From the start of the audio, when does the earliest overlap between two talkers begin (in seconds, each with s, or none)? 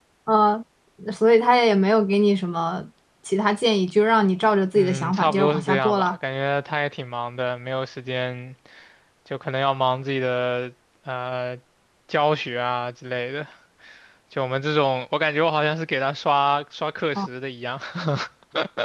4.8 s